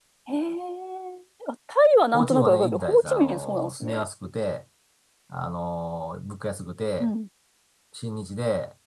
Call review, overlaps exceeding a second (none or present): present